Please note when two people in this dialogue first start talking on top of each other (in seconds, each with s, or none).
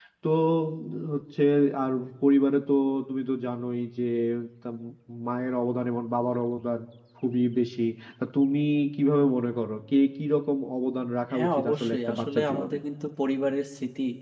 11.3 s